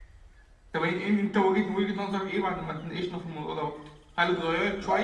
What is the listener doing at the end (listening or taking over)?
listening